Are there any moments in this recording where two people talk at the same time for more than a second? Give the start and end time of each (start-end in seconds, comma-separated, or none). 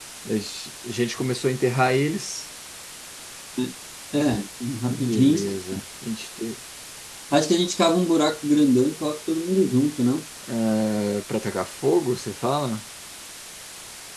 none